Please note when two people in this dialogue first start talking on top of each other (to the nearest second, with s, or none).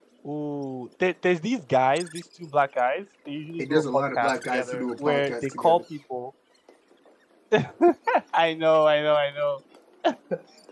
4 s